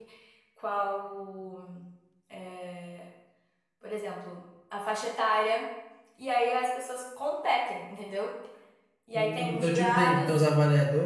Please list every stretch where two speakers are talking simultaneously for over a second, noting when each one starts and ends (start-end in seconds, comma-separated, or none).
9.1-10.4